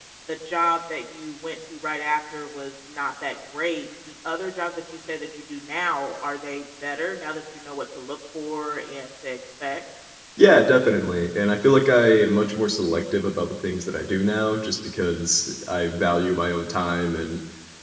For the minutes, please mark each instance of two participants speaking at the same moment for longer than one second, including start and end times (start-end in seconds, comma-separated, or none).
none